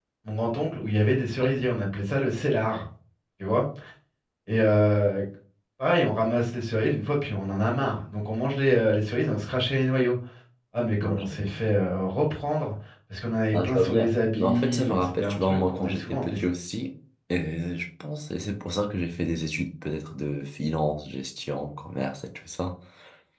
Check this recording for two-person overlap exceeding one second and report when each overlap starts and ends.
13.5-16.4

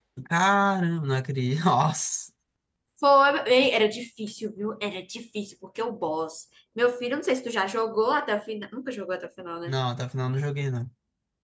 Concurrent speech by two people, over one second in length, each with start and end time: none

